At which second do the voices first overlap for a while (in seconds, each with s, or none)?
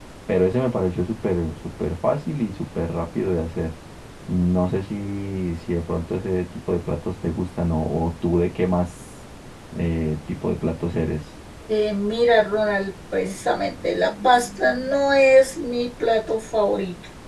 none